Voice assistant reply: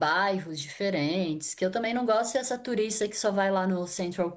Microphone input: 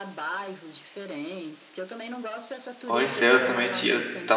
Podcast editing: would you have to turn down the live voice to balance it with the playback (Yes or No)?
Yes